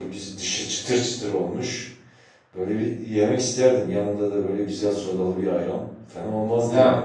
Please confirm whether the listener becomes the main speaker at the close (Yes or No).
Yes